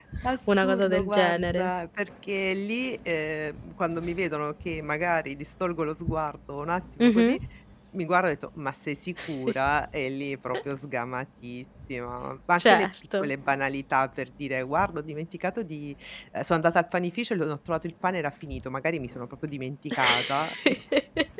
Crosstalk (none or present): present